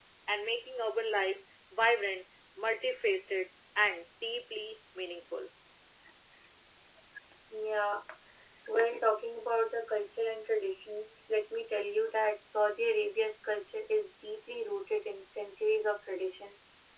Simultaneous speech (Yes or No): No